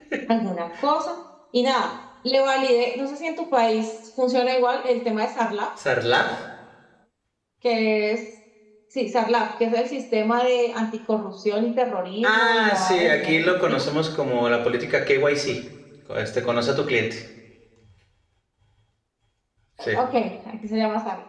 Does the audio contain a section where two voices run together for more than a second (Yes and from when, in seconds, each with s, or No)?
Yes, from 12.2 s